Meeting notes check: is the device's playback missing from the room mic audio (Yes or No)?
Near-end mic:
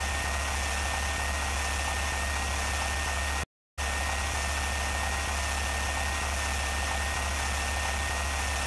Yes